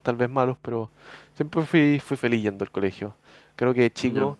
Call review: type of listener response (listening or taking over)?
listening